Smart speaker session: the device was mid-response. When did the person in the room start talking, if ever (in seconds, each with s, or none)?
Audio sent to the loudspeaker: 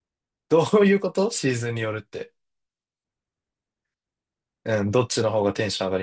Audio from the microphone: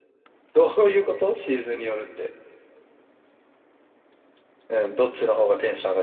none